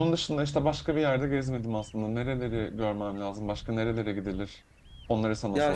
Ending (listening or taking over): taking over